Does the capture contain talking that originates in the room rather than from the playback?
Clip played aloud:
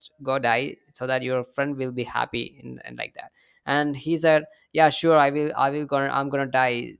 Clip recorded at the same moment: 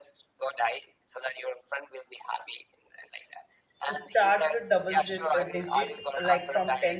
Yes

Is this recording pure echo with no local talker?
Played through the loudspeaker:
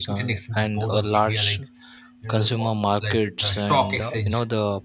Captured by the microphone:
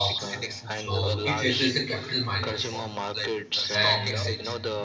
No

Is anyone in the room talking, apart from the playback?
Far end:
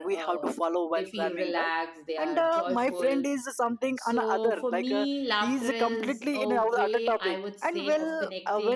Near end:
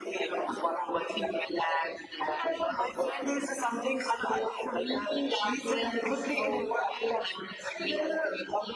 No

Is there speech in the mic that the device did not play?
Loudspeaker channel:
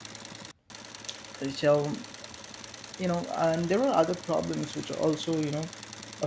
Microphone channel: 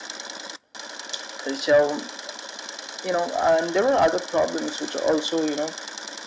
No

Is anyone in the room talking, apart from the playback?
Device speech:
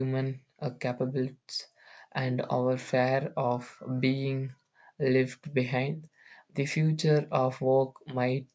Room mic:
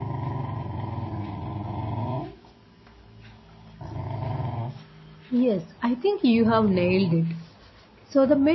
Yes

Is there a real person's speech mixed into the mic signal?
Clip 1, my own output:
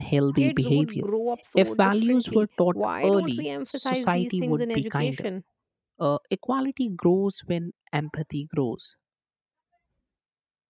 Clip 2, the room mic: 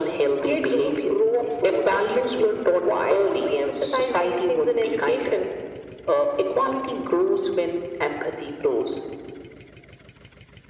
No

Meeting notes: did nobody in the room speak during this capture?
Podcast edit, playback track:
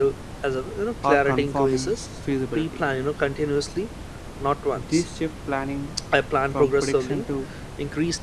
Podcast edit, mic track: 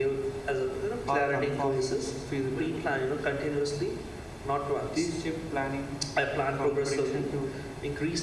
Yes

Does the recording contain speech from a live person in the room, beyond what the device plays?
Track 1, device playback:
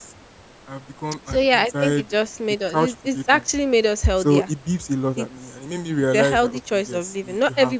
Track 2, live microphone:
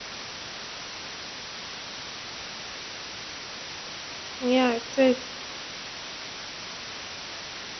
Yes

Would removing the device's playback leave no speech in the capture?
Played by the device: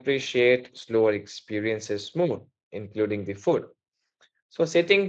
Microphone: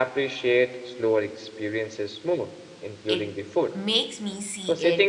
No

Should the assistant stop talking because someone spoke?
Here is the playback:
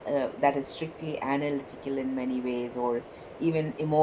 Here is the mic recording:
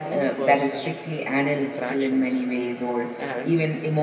Yes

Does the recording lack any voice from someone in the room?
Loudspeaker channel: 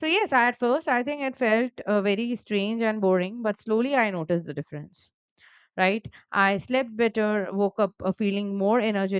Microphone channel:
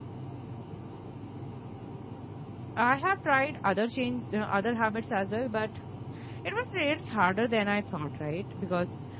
No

